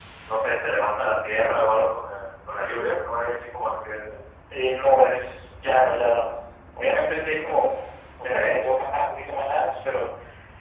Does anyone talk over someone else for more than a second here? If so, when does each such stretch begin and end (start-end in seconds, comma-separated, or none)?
none